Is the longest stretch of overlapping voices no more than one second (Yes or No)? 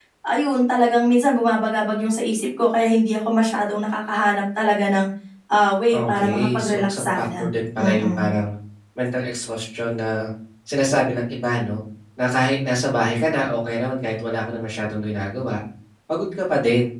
No